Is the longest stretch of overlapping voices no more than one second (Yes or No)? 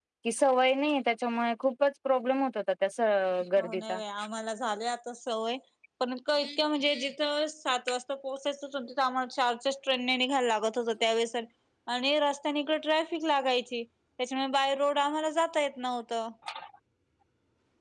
Yes